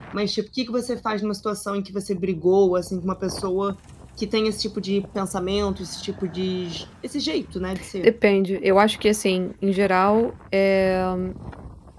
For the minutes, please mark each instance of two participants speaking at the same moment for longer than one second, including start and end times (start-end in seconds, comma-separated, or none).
none